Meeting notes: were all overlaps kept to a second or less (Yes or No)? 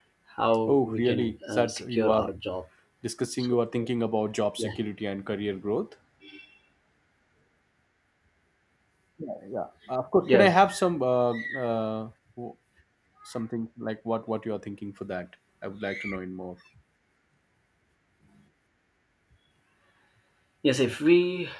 No